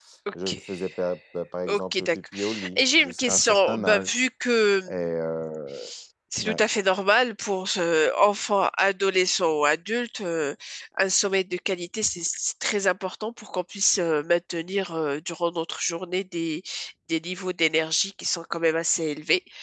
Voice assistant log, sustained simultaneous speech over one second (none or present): present